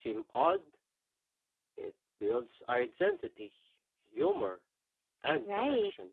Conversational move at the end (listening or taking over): taking over